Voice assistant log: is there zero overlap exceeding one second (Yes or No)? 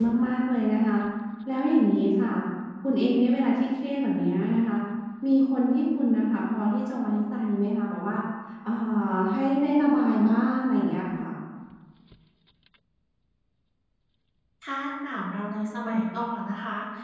Yes